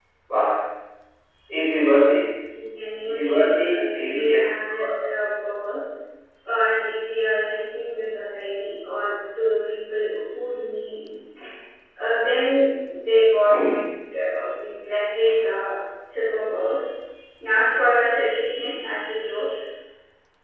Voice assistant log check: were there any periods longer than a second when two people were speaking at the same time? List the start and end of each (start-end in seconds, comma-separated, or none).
3.0-4.4